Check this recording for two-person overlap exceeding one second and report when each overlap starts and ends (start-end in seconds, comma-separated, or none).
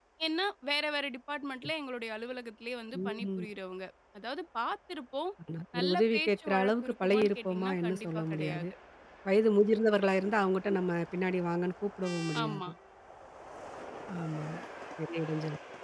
5.8-8.7